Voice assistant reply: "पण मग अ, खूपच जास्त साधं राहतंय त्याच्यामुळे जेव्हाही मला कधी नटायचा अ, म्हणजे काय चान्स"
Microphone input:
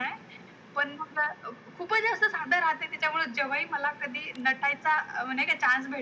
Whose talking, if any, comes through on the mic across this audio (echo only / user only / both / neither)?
echo only